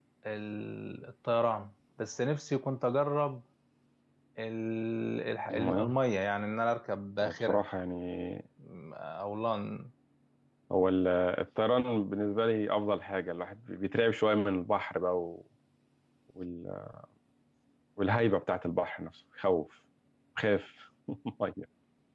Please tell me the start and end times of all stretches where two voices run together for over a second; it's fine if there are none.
none

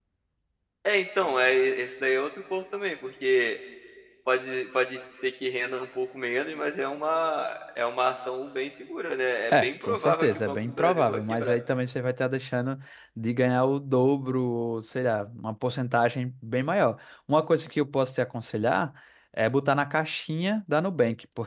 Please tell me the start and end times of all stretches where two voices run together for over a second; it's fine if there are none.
9.5-11.6

